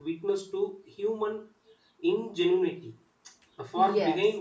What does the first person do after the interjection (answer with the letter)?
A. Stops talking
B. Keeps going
B